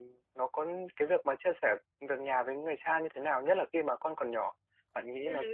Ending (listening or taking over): taking over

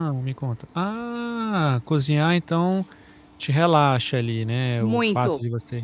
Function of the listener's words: listening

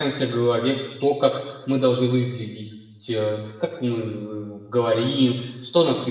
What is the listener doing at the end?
listening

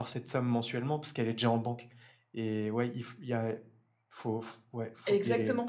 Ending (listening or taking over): taking over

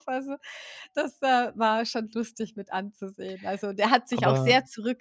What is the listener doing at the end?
listening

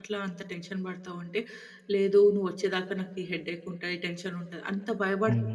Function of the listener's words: taking over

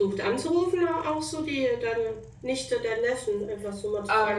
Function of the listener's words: taking over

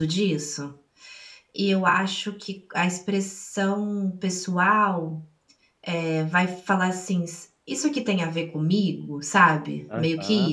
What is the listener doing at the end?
taking over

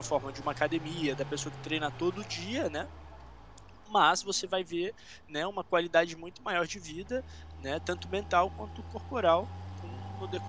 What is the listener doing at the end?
taking over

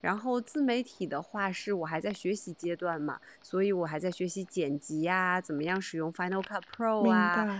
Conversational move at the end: listening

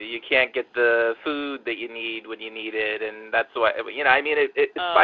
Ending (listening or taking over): listening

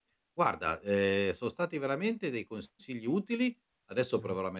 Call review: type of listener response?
listening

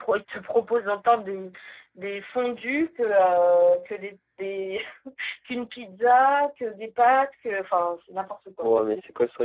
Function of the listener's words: taking over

